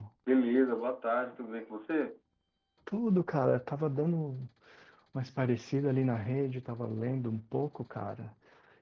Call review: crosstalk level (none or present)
none